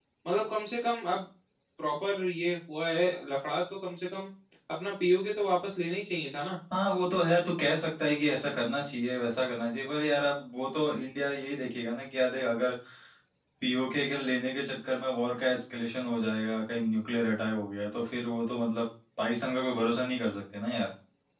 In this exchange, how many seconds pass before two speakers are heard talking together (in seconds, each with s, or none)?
none